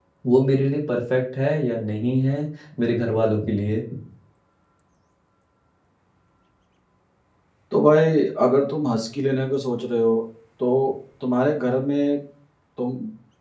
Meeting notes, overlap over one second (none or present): none